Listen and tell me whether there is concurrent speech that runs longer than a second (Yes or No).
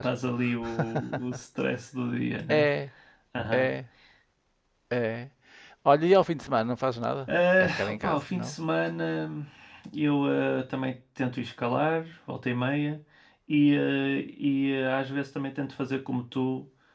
Yes